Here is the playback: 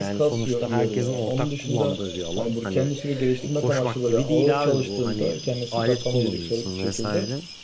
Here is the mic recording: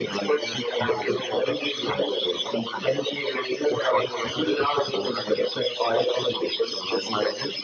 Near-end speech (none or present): none